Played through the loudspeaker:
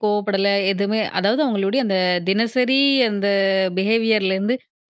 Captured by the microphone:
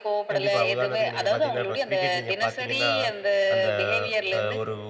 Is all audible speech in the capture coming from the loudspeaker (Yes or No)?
No